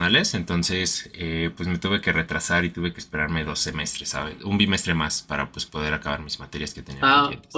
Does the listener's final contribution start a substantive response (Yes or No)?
Yes